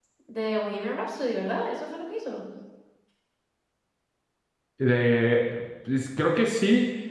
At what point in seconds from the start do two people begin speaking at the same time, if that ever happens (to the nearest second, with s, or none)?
none